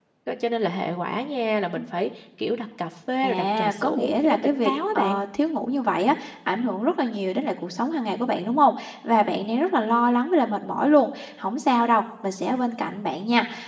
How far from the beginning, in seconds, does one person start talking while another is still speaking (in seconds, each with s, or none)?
3.2 s